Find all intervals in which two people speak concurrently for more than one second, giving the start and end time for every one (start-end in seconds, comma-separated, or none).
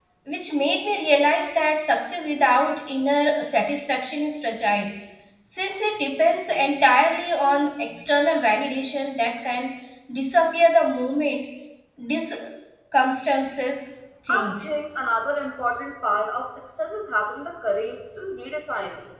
none